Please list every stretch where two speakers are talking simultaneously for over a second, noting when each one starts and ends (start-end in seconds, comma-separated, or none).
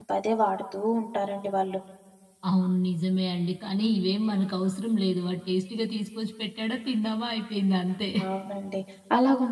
none